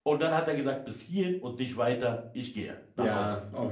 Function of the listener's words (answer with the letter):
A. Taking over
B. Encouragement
A